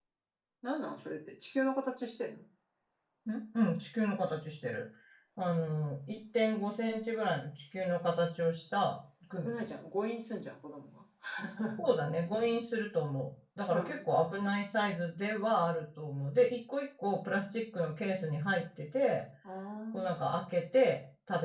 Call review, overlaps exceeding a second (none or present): none